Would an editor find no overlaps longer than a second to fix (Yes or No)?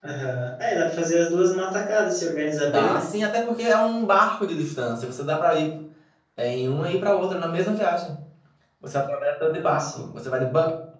Yes